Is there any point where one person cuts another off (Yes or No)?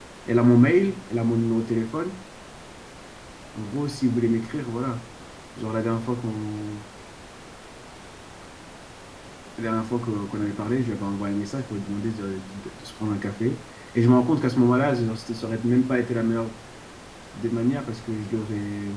No